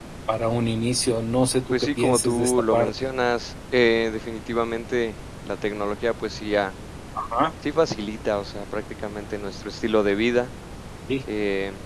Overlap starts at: 2 s

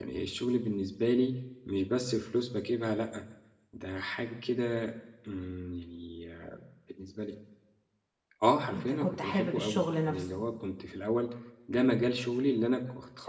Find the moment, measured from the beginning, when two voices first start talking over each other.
9 s

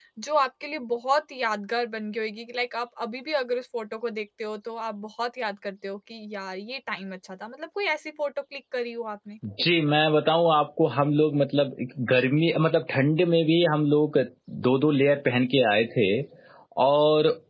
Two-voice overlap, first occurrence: none

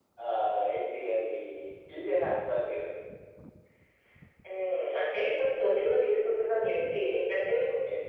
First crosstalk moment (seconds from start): none

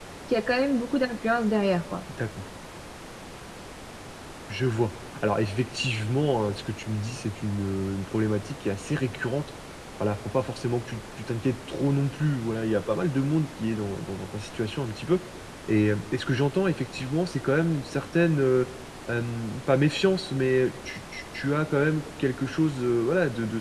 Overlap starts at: none

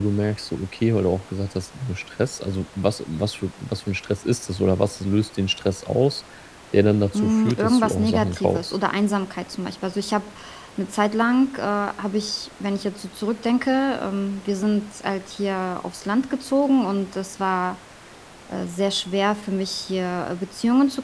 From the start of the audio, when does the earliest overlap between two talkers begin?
7 s

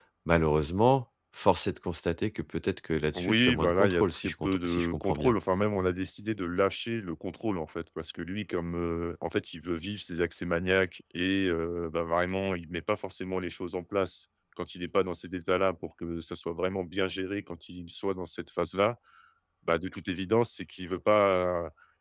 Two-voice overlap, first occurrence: 3 s

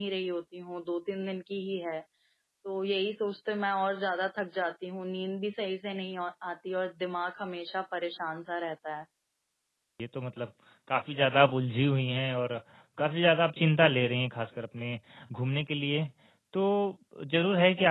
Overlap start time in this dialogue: none

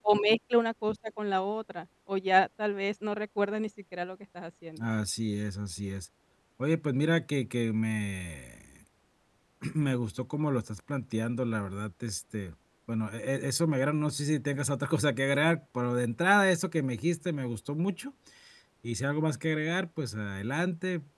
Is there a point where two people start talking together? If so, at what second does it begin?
none

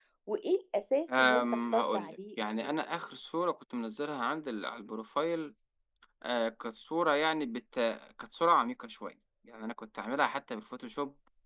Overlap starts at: 1 s

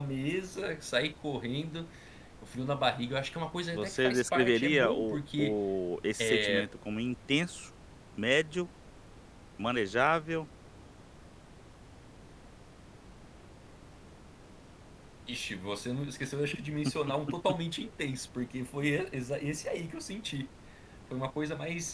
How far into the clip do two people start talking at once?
4 s

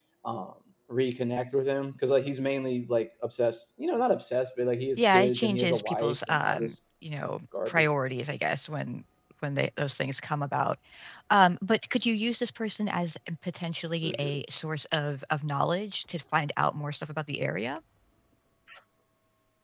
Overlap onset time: 5 s

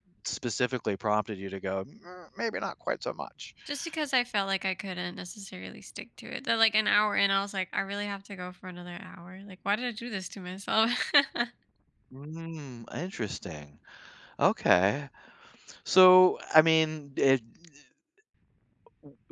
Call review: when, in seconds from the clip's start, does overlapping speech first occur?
none

